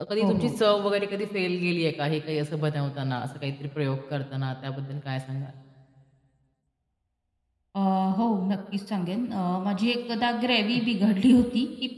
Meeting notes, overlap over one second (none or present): none